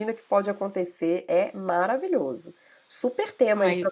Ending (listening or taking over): taking over